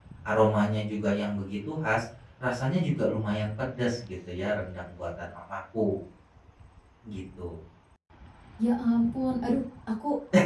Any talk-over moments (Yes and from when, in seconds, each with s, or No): No